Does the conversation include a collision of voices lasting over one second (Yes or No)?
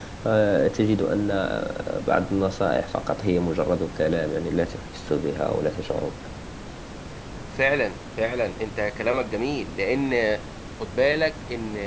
No